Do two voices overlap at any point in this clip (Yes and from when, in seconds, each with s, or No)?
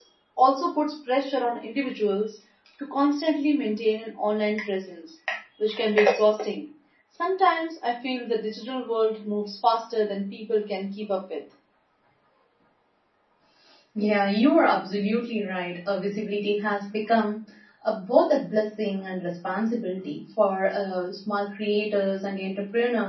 No